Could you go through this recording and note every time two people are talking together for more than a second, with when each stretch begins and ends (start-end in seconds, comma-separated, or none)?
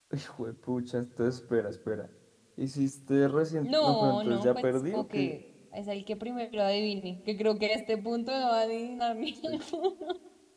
3.6-5.3